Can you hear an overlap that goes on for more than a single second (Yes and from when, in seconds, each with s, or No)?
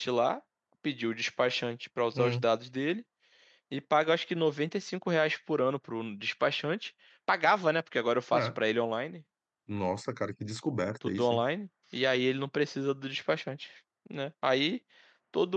No